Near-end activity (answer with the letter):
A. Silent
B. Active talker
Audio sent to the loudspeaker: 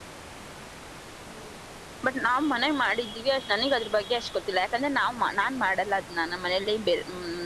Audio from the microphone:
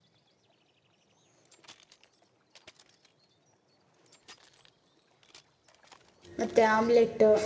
B